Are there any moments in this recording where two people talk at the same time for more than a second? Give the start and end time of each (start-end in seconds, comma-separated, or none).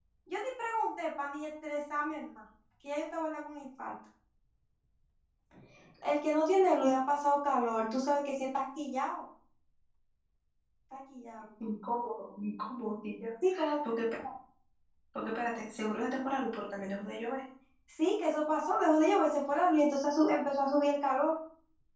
none